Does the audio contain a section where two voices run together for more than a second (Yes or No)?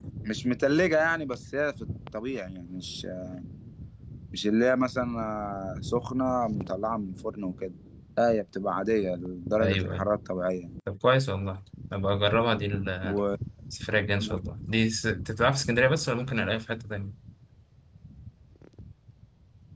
No